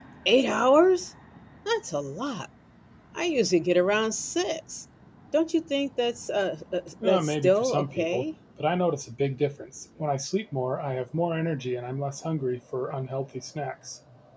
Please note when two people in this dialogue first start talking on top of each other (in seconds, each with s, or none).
7.0 s